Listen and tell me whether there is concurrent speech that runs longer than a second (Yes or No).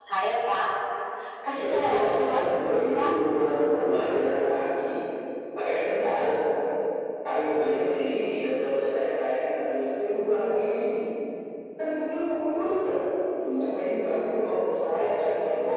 Yes